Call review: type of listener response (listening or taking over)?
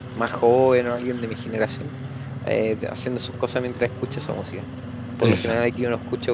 listening